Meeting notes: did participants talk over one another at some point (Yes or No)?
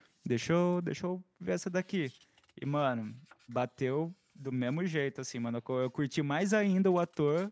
No